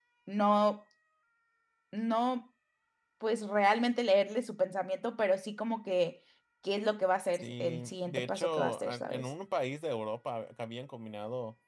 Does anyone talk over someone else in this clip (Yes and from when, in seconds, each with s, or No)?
Yes, from 7.3 s